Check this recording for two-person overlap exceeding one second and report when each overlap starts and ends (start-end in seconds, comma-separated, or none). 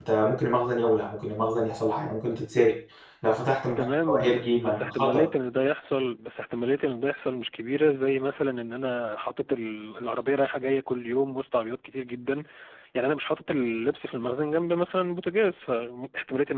3.8-5.3